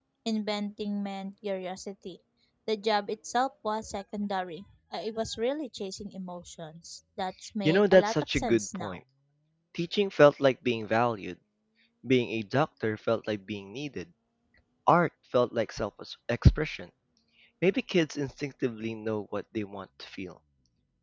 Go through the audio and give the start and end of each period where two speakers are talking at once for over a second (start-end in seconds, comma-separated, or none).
7.7-9.0